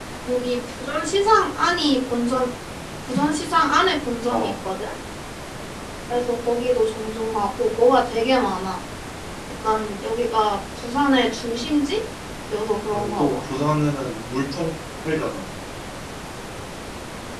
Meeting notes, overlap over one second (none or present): none